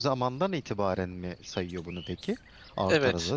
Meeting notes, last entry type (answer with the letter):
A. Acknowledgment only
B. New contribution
B